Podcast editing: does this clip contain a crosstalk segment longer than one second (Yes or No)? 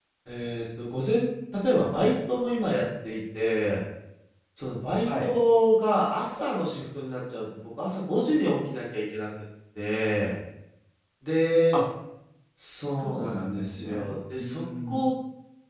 Yes